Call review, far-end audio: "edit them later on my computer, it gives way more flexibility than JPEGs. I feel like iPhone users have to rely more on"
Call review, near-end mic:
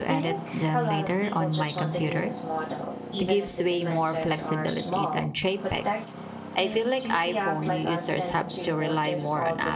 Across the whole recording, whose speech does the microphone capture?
both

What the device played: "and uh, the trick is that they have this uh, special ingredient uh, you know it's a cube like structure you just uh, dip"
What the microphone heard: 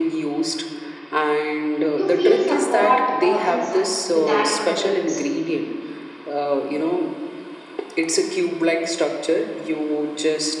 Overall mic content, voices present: both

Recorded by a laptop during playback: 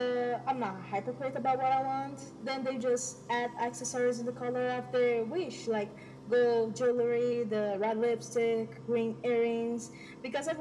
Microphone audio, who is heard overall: echo only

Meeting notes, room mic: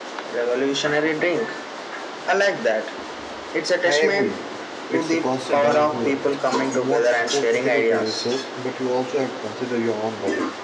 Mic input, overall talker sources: both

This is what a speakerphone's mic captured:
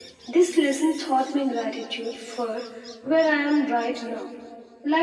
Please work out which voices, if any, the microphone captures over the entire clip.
echo only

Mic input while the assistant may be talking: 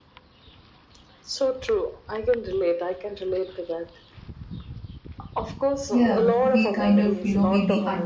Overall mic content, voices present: both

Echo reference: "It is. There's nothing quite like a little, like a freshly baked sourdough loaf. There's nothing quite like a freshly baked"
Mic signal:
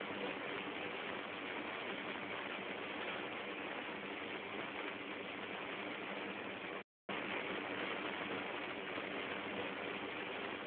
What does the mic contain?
neither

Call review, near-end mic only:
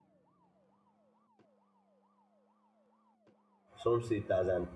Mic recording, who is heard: user only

